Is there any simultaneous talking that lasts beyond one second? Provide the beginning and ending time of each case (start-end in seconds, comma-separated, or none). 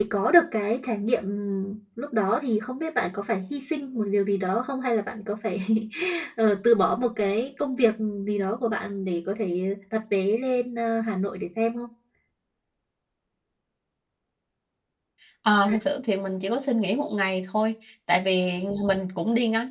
none